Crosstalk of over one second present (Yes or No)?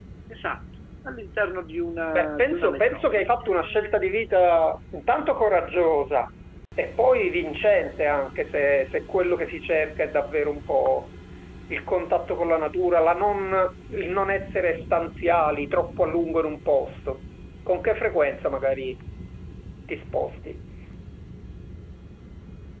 Yes